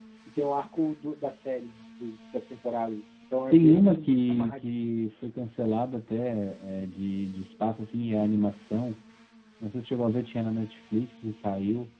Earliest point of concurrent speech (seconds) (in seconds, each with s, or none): 3.5 s